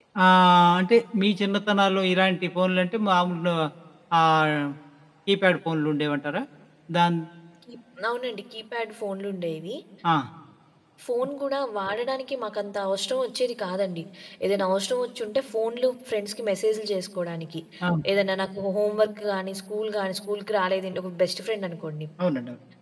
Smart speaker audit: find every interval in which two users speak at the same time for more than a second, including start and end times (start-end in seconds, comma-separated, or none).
none